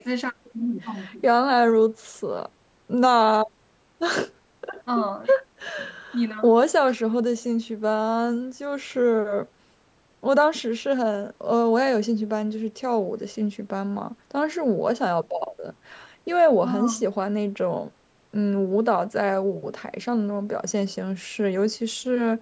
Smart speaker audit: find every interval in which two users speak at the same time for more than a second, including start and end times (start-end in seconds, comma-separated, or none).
none